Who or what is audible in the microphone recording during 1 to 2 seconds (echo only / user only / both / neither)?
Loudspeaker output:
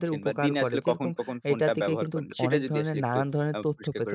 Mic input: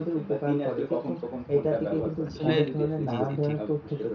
echo only